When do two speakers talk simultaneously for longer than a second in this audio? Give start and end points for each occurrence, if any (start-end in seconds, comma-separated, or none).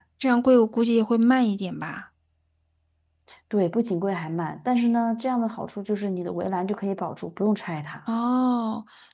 none